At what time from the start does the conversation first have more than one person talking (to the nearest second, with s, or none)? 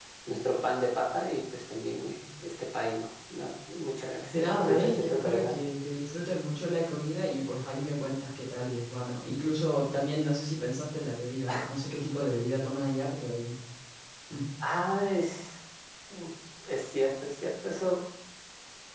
4 s